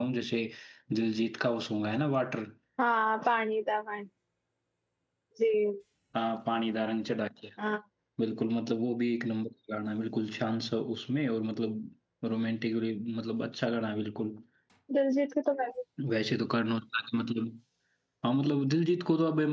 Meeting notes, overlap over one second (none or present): none